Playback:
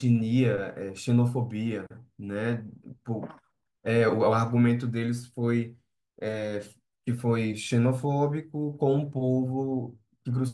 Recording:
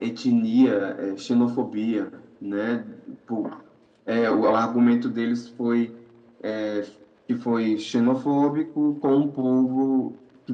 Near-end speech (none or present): none